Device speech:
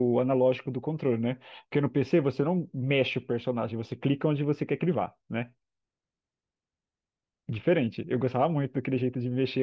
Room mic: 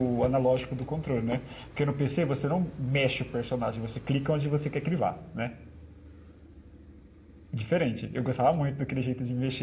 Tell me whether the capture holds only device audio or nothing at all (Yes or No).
Yes